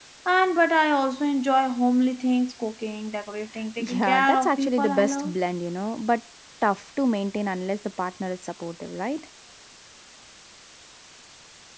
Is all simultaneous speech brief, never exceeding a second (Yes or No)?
No